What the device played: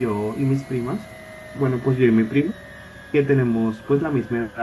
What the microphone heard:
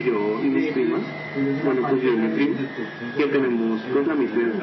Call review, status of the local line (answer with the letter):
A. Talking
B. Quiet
A